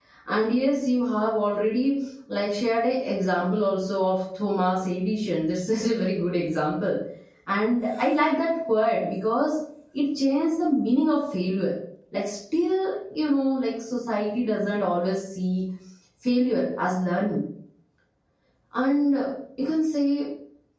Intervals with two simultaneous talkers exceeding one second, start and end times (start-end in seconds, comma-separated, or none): none